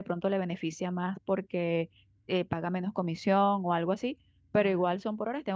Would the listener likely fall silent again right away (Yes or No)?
Yes